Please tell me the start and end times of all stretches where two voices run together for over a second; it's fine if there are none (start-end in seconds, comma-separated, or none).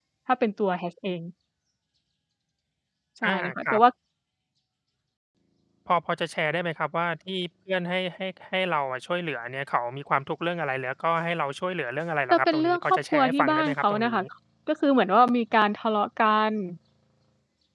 12.3-14.2